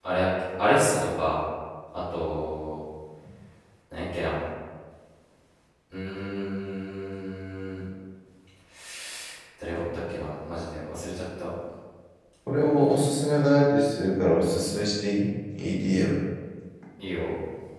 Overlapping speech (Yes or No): No